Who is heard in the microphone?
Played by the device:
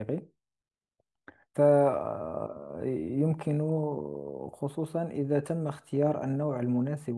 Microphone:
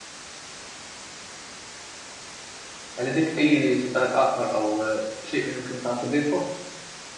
user only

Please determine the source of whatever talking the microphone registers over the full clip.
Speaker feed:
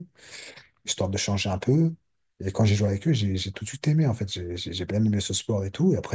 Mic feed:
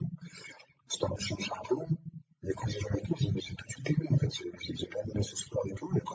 echo only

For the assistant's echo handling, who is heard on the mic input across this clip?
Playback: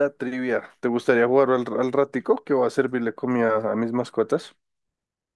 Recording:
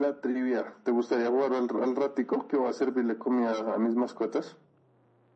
echo only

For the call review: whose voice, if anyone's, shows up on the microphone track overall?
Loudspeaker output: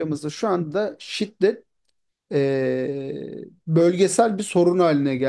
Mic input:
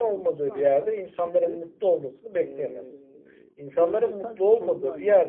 both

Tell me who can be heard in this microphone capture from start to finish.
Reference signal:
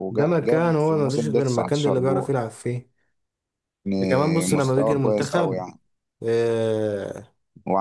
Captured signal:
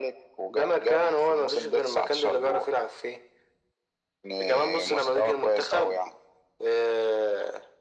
echo only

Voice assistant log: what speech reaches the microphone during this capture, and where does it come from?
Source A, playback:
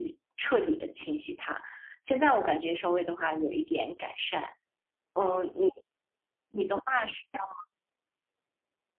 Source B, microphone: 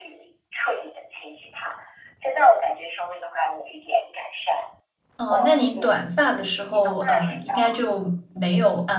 both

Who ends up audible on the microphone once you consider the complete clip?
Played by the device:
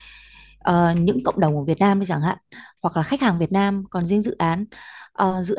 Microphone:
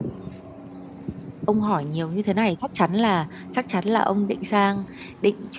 user only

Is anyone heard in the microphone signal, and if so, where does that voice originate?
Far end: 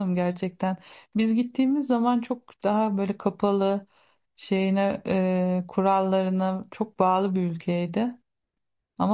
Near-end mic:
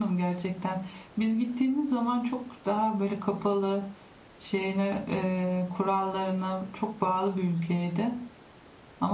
echo only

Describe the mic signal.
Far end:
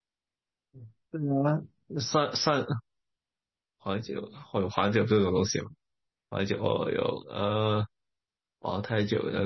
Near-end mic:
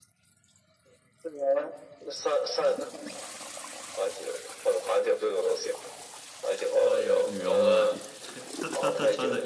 both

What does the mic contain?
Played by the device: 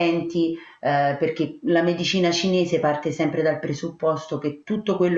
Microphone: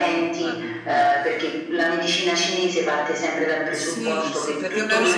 both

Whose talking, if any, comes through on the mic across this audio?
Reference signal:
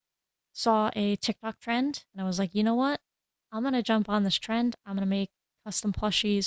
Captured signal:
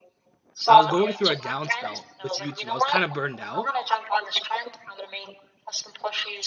both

